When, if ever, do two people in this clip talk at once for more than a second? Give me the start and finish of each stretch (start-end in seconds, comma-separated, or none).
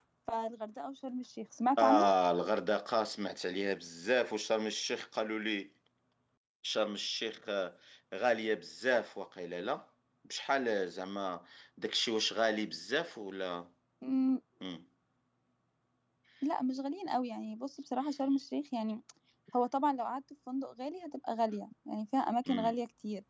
none